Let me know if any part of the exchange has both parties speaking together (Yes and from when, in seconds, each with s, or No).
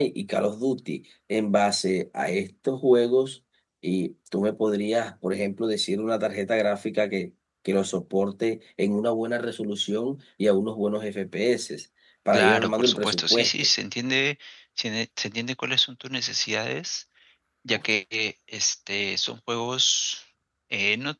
Yes, from 12.3 s